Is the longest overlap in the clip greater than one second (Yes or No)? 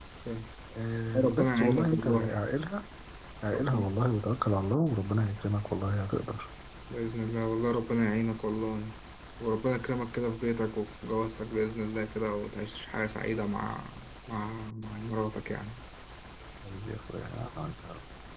Yes